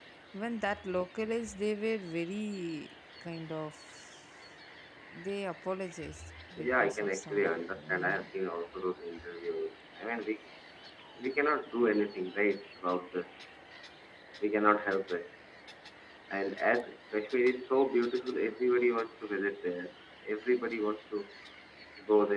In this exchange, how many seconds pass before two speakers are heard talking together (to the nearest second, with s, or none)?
7 s